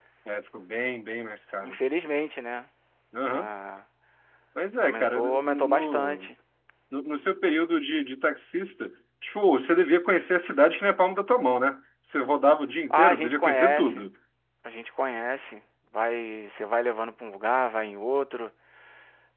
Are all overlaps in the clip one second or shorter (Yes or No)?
No